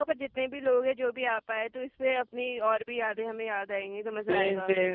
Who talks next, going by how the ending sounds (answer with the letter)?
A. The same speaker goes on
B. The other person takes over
B